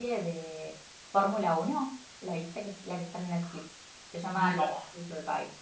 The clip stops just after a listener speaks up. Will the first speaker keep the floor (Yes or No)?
Yes